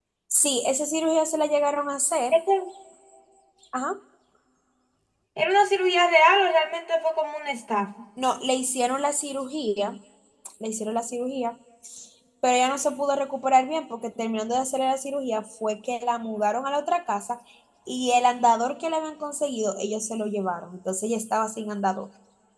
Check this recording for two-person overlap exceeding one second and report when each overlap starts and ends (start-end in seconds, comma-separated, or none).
none